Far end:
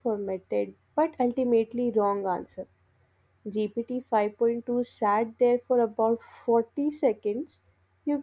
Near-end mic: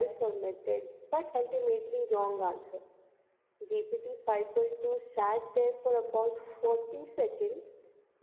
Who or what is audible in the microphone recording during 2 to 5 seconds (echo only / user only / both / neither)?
echo only